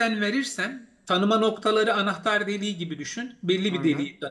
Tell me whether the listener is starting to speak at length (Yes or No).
No